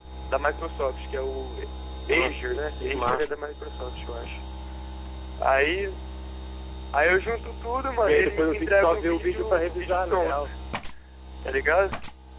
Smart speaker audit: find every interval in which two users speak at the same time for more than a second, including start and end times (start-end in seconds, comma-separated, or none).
2.1-3.3, 8.0-10.4